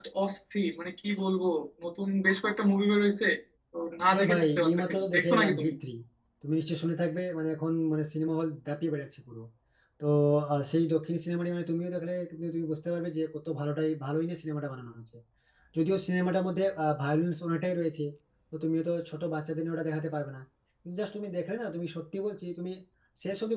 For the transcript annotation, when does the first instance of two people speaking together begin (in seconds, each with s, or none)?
4.1 s